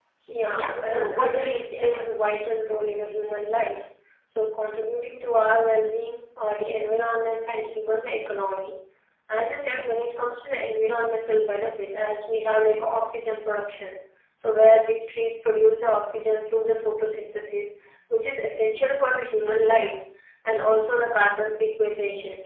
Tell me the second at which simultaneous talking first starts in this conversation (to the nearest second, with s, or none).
1 s